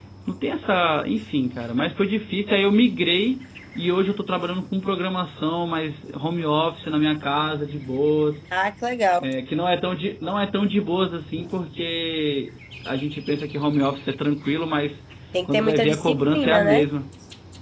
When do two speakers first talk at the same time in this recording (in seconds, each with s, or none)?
15.4 s